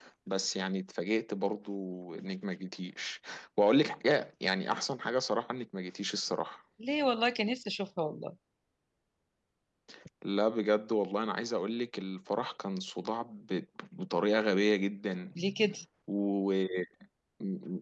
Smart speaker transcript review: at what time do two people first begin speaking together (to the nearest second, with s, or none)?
none